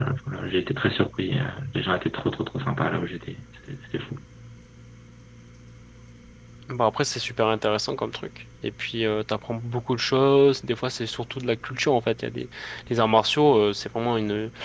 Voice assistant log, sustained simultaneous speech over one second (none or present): none